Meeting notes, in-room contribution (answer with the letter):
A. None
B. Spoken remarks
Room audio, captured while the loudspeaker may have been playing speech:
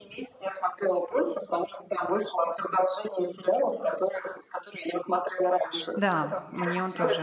B